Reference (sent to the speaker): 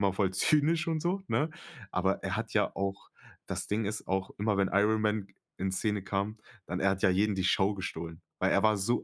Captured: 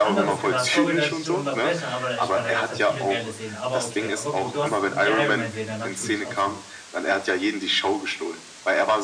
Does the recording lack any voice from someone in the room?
No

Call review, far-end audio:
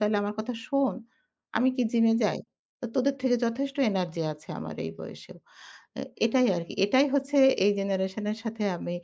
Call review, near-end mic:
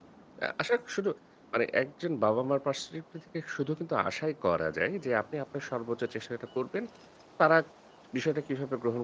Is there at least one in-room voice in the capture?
Yes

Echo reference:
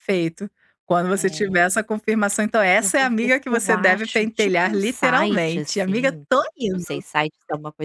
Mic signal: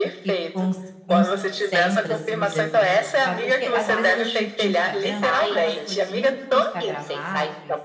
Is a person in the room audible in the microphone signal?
Yes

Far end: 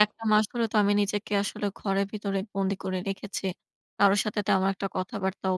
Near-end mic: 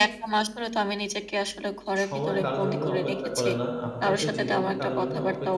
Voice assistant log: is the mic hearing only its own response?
No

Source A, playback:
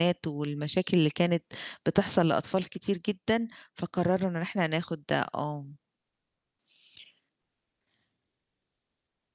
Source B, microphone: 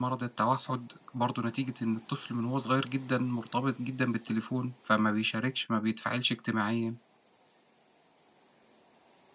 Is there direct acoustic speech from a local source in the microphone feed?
Yes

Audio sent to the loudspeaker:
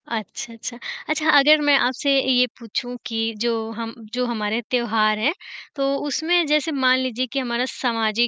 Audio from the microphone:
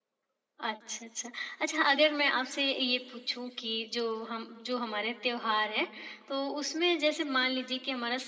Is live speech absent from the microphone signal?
Yes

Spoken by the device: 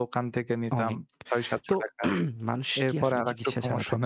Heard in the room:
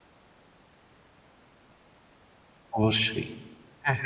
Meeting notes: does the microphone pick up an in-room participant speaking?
Yes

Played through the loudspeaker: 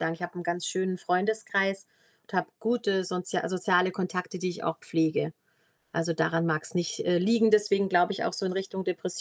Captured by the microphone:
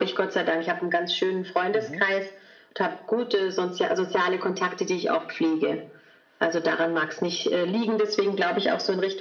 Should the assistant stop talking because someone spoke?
Yes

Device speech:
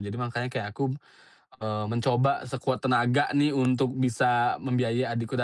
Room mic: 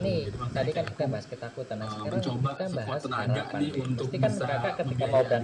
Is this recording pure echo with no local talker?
No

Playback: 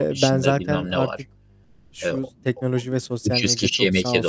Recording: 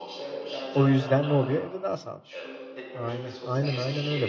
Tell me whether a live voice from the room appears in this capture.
Yes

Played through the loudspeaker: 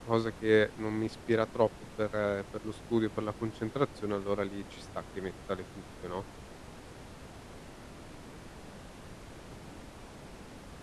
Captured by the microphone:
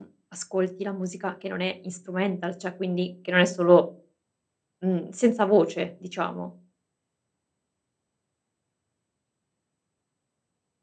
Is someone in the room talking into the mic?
Yes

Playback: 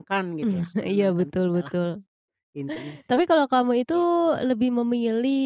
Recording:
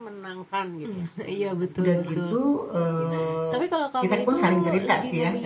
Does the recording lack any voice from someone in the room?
No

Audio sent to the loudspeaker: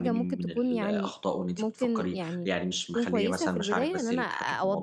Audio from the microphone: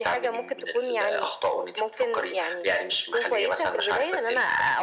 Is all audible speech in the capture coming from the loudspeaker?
Yes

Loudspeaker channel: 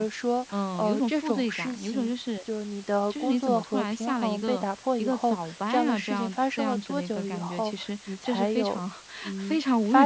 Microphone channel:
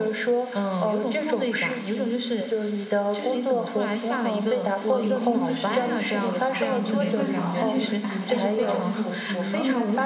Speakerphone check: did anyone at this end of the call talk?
Yes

